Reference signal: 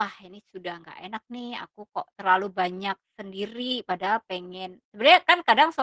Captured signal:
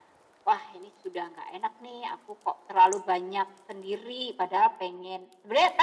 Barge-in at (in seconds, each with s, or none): none